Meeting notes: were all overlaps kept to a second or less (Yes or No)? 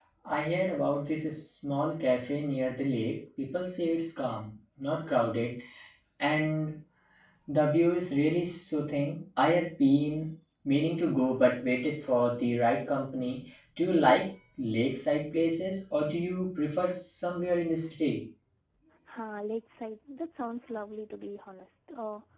Yes